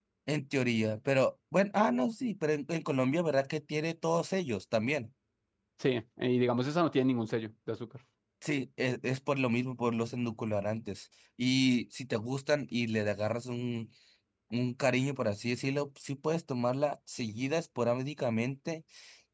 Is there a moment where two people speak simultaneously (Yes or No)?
No